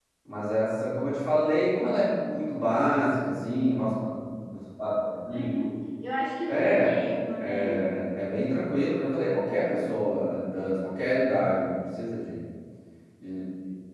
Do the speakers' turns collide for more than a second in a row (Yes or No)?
No